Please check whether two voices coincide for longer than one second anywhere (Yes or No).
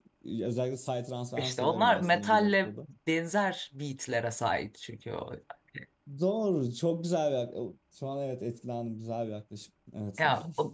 Yes